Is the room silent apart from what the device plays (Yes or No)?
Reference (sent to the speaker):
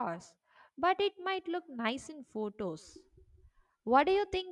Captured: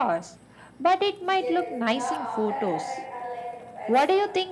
No